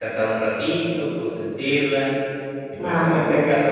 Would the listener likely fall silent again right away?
Yes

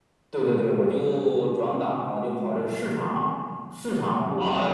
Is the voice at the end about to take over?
Yes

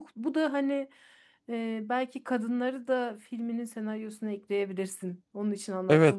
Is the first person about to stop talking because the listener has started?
Yes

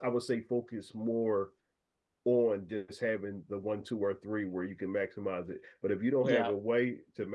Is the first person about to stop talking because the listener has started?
No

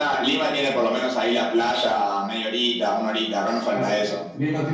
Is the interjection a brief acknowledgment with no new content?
No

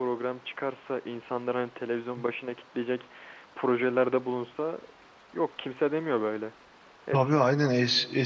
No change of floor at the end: No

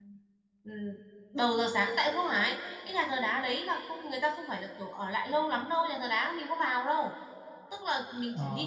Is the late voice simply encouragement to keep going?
No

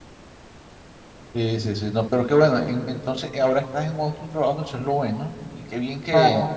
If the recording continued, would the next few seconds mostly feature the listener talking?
Yes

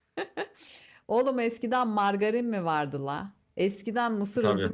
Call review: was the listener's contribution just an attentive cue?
Yes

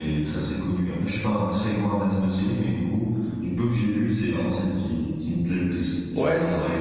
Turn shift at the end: Yes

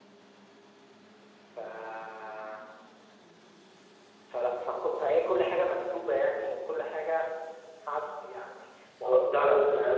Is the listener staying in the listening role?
No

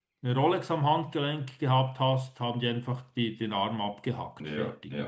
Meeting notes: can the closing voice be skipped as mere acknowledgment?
No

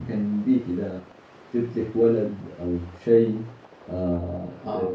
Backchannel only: Yes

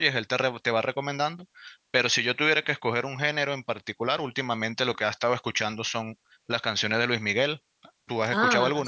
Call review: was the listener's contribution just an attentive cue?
No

